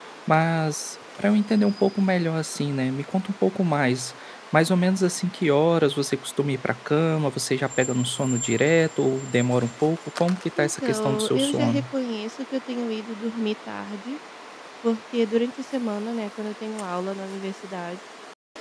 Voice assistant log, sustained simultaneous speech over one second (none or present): present